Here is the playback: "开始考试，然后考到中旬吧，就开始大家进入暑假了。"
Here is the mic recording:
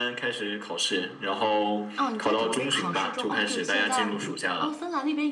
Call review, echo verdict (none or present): present